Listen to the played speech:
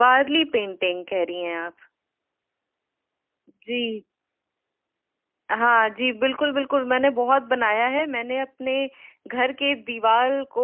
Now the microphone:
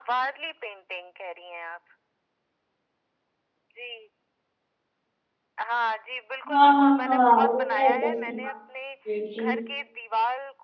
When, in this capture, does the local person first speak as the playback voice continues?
6.5 s

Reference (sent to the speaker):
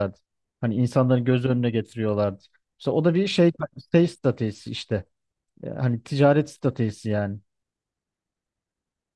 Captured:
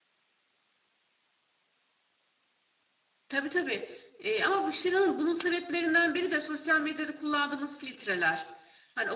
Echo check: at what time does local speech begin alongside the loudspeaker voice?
3.3 s

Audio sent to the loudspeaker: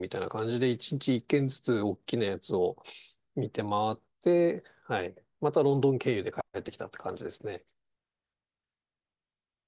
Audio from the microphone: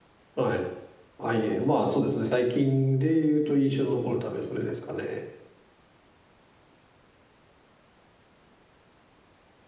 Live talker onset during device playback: 0.3 s

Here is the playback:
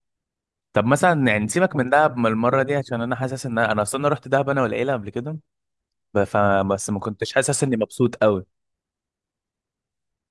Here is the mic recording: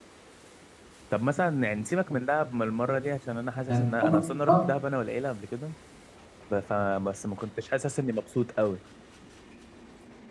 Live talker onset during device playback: 3.7 s

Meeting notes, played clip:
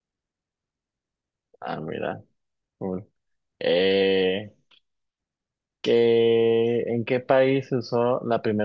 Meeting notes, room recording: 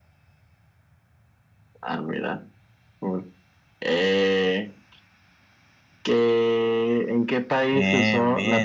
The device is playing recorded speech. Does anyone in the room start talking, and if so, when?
7.7 s

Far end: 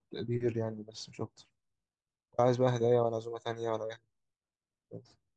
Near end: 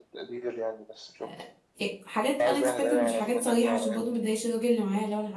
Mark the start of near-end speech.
1.2 s

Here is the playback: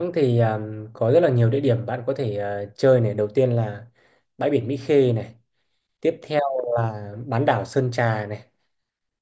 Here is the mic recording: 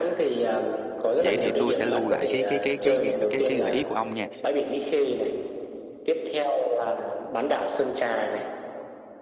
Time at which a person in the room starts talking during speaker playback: 1.2 s

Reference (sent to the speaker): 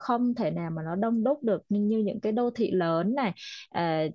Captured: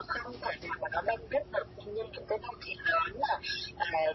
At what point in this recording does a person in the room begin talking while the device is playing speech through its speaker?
none

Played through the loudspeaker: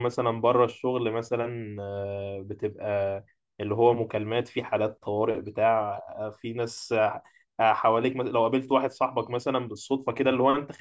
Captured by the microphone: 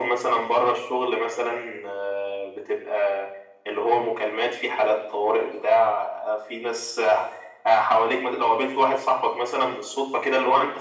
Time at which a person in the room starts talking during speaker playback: none

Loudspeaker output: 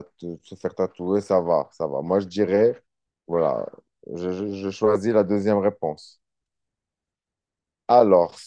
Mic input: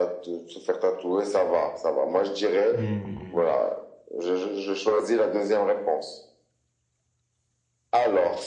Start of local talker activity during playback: 2.7 s

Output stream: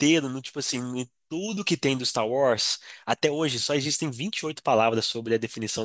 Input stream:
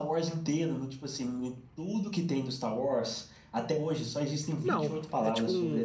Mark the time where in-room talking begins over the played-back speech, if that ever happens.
4.6 s

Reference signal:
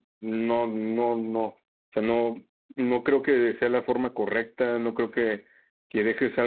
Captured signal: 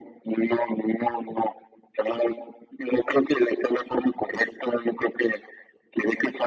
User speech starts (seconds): none

